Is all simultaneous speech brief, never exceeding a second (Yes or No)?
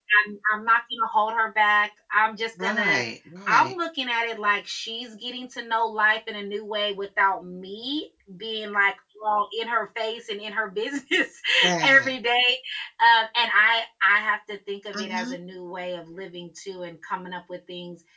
Yes